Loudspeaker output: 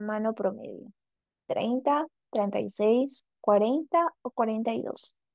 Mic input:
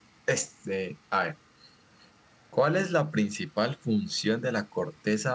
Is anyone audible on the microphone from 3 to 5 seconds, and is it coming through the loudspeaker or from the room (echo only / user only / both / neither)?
user only